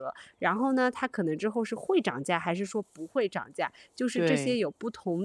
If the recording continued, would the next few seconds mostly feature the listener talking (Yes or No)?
No